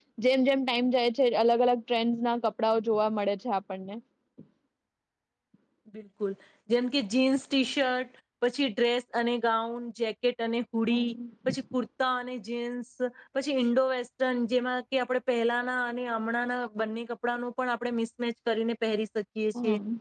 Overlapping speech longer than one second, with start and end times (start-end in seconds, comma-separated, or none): none